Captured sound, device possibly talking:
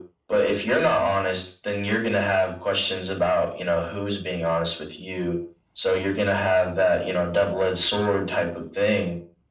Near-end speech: none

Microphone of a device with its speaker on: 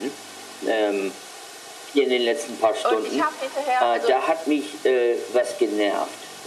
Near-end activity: present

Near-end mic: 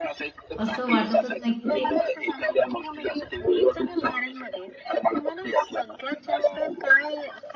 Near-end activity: present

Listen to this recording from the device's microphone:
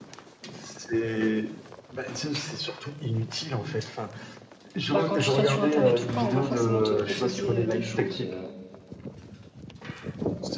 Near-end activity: present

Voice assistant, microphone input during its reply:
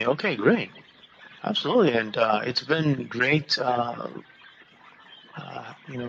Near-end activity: none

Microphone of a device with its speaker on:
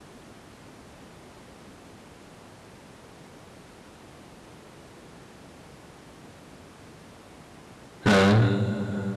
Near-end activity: present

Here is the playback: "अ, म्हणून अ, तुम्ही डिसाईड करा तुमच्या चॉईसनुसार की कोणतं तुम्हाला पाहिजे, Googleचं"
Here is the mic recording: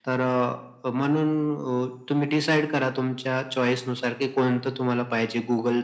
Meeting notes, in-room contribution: none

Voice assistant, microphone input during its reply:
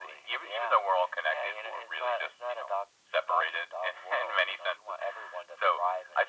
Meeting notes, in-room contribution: none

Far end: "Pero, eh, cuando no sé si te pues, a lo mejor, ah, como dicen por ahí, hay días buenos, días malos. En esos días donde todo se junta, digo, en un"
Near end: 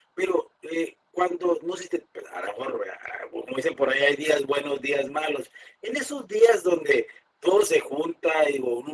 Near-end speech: none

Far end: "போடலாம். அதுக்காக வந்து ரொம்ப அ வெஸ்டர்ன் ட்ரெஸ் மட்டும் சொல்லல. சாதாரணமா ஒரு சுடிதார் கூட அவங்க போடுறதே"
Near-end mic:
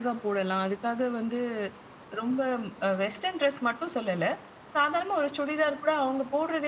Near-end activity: none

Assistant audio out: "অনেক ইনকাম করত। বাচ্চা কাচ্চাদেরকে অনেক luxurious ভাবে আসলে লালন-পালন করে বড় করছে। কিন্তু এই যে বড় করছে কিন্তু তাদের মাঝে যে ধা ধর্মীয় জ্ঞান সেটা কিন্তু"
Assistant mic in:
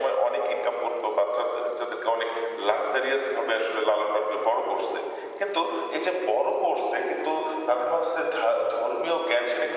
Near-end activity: none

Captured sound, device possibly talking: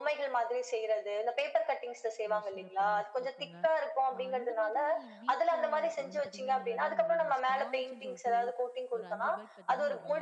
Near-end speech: present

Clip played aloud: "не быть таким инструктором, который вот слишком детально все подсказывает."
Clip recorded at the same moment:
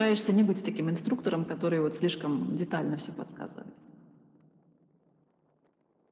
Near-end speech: none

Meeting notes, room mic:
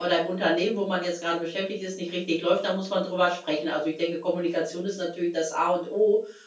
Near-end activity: present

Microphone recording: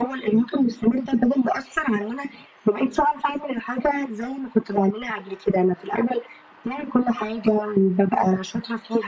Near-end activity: none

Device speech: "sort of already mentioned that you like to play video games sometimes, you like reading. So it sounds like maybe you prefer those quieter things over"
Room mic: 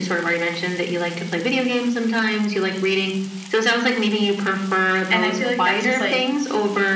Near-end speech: present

